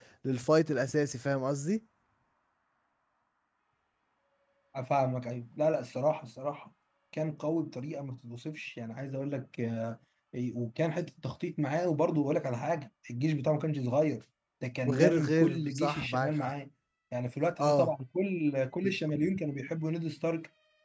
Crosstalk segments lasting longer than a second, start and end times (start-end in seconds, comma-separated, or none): 14.9-16.5